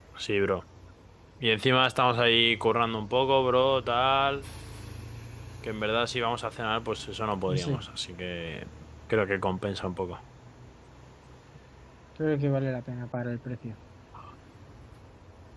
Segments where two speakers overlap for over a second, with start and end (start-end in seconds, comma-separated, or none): none